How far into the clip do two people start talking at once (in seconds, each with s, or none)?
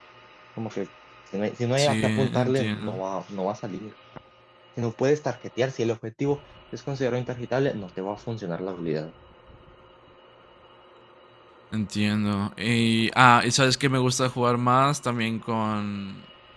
1.8 s